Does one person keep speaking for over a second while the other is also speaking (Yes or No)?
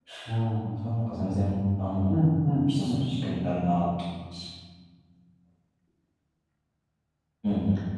No